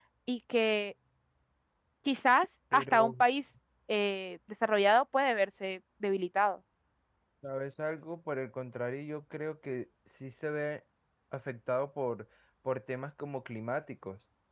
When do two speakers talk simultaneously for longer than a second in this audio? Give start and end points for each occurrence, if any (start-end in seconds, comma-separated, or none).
none